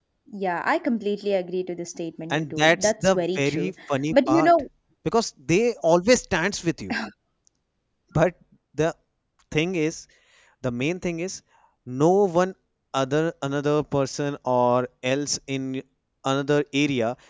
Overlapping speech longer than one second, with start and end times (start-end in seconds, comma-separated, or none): 2.3-3.7